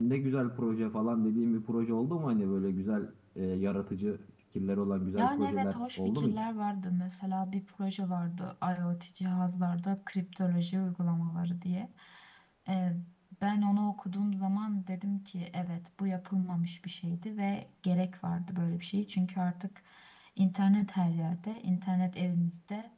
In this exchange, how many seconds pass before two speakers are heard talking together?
5.2 s

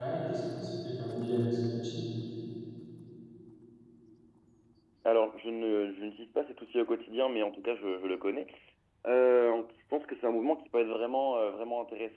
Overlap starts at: none

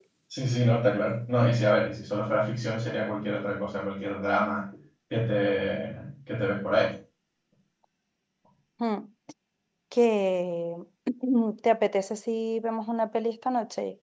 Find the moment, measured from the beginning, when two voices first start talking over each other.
none

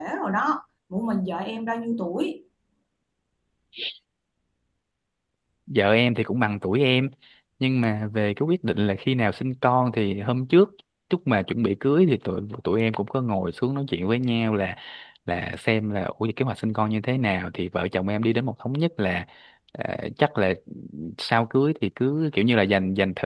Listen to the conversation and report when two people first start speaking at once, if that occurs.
none

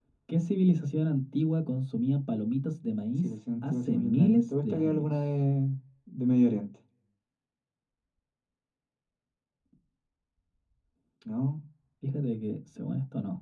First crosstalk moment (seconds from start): 3.1 s

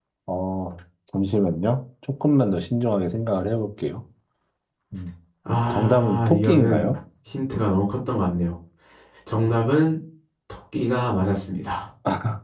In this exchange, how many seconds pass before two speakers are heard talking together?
5.7 s

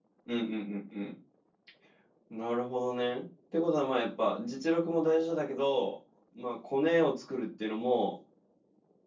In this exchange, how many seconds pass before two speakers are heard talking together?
none

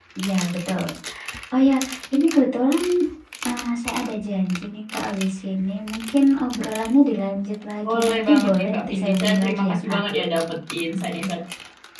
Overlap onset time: 7.8 s

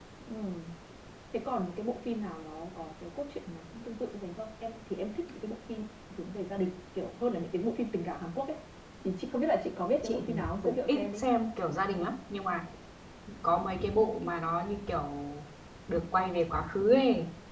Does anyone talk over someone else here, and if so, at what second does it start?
10.0 s

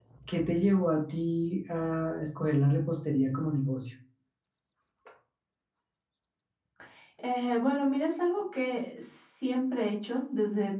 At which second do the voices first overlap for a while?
none

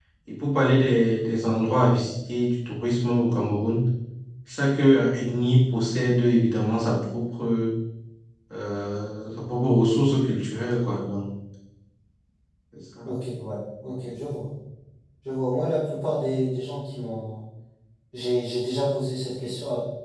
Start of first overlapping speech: none

